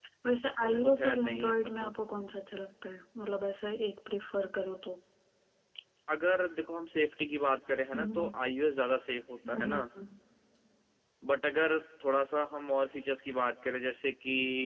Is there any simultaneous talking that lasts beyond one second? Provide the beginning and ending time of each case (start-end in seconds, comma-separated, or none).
0.6-1.9